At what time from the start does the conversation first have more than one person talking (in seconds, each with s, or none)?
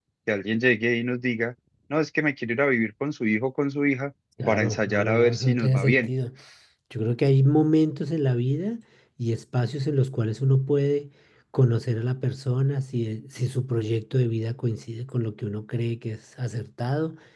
4.4 s